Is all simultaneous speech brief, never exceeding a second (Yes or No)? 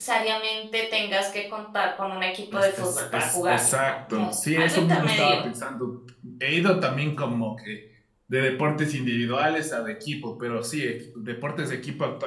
No